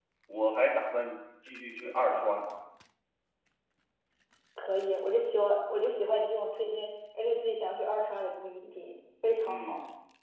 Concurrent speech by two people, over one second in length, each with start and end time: none

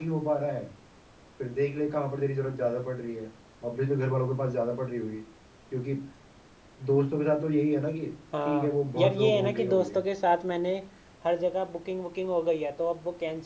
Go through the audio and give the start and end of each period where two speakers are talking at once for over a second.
8.4-10.0

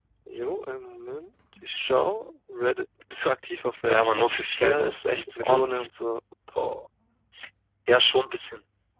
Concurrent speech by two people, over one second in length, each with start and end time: 3.9-5.9

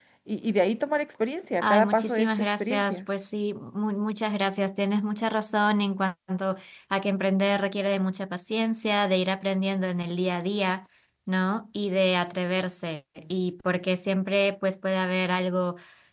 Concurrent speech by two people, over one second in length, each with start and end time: 1.6-3.0

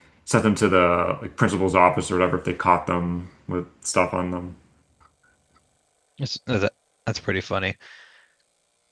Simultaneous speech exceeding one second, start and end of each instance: none

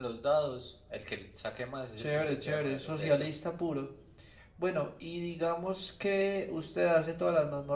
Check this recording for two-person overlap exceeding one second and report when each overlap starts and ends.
2.0-3.3

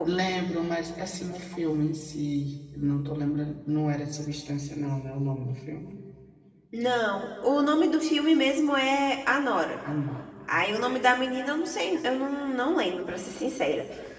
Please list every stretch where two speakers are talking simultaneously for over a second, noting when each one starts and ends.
none

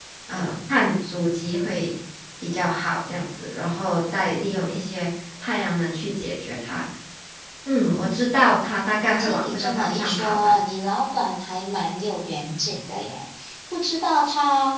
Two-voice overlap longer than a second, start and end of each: 9.2-10.5

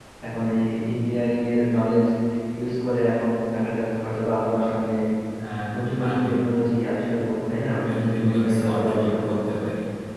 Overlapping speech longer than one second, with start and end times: 7.7-9.4

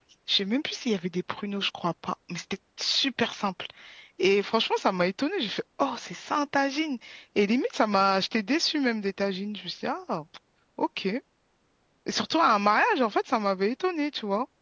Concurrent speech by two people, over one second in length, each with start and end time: none

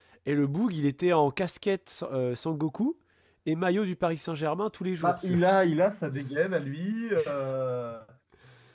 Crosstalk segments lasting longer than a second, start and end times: none

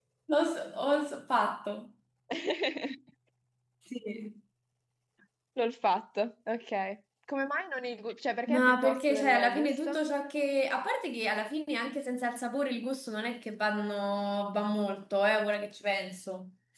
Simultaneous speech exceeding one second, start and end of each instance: 8.5-10.0

